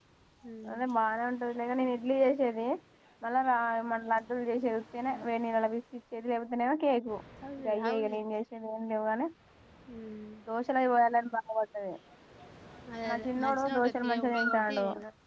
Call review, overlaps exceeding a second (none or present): present